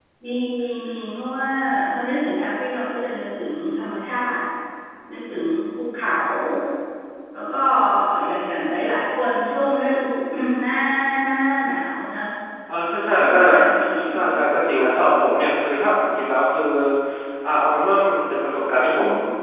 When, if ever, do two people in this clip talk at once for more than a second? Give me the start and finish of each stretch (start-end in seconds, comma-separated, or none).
none